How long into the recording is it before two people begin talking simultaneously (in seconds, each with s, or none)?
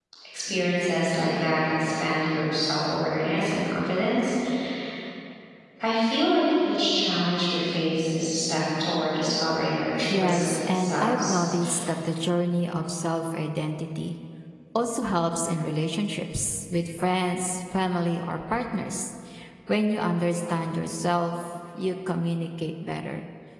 10.0 s